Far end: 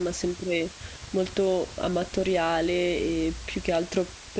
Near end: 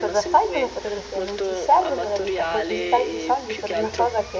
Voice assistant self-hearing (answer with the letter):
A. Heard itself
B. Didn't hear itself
A